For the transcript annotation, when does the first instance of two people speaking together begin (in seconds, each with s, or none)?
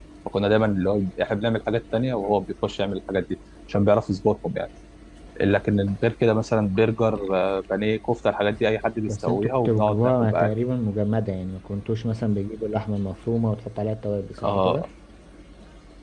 9.1 s